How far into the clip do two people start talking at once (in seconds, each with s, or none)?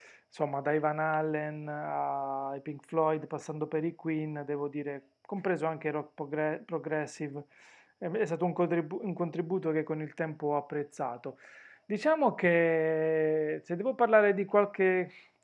none